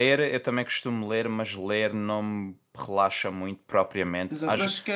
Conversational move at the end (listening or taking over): taking over